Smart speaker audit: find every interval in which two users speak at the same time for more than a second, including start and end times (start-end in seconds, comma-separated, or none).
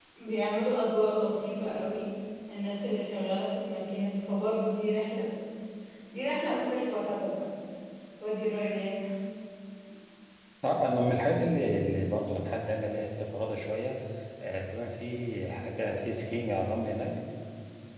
none